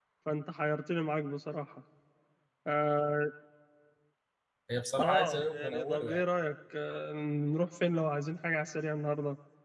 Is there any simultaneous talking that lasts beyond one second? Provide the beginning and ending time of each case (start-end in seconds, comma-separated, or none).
5.0-6.2